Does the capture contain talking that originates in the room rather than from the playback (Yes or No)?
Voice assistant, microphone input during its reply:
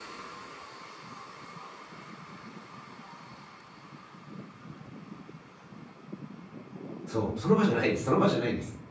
Yes